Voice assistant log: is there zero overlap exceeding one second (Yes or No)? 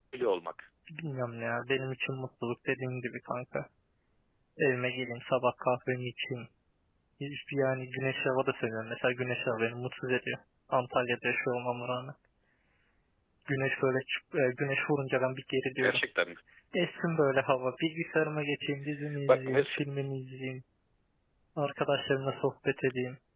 Yes